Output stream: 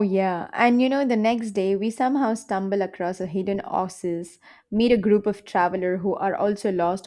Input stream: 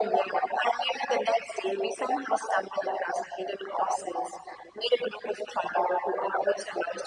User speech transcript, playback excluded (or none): none